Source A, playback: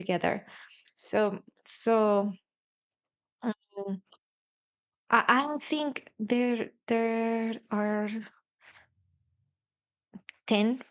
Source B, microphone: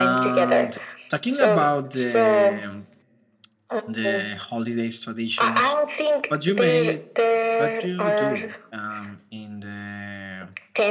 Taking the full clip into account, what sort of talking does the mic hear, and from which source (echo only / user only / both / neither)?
both